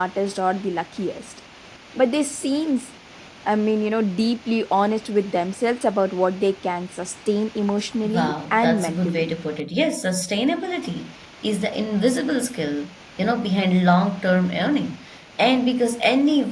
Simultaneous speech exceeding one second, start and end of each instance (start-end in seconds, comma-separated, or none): 8.0-9.3